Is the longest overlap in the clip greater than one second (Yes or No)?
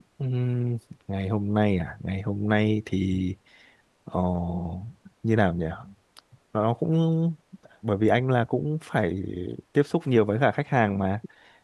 No